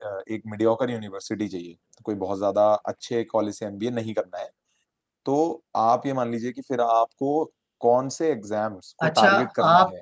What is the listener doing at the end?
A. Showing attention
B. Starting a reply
B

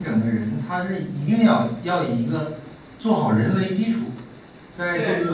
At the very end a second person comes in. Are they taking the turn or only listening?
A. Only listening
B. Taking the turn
A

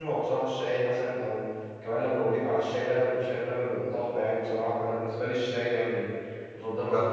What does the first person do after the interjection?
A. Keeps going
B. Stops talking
B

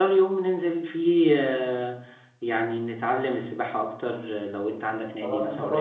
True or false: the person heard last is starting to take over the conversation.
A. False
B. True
B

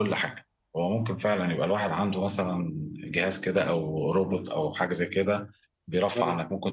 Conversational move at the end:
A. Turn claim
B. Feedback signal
B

